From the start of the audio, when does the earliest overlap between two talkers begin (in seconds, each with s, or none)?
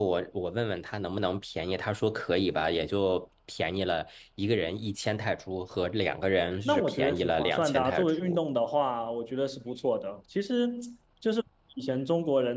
6.6 s